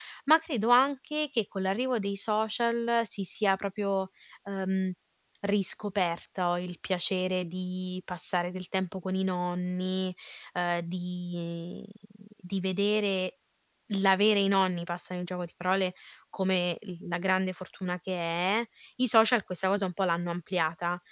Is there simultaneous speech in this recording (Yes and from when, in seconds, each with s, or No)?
No